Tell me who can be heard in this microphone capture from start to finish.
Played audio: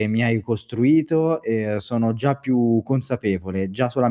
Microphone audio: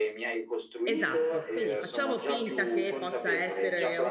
both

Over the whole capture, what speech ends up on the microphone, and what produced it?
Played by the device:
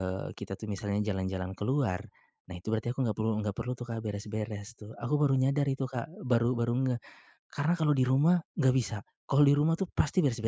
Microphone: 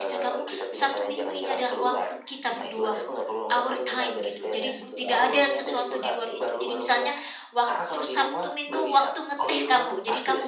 both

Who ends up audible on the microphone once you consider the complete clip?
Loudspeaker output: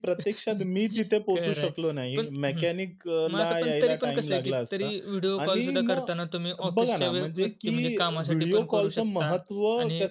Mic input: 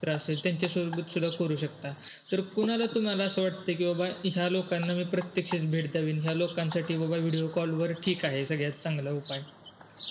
user only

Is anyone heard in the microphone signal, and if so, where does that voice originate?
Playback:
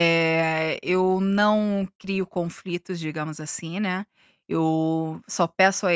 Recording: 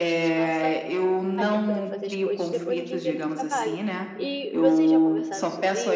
both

